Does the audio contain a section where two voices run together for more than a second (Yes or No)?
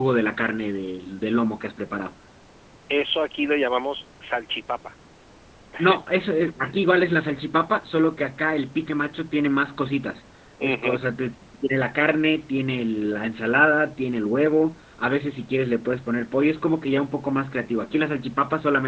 No